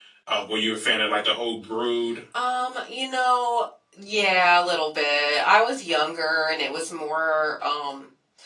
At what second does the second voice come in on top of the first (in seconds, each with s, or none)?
none